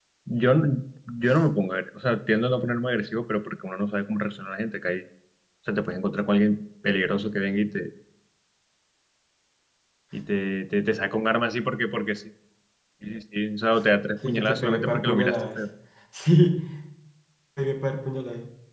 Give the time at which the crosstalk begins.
14.2 s

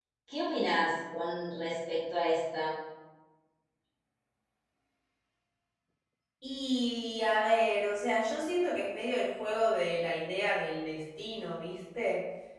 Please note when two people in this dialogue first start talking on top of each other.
none

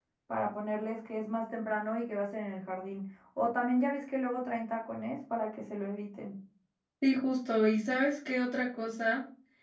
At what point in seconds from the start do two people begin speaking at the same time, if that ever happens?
none

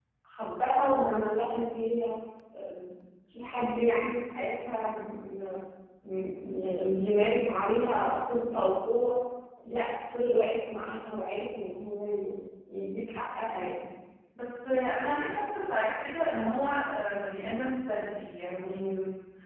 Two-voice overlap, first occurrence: none

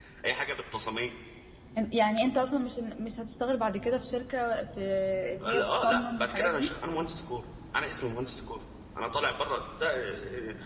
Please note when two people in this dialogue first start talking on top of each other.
5.5 s

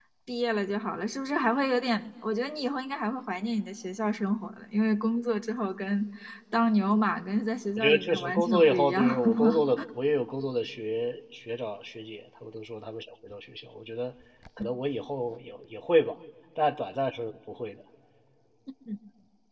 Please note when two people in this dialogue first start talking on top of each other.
7.8 s

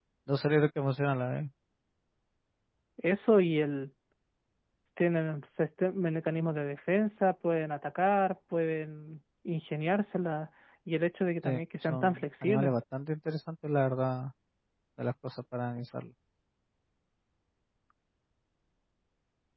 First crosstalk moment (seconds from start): 11.4 s

